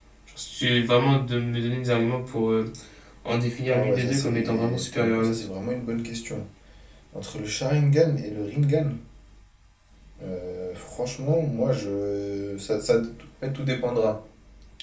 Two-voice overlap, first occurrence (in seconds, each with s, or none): 3.7 s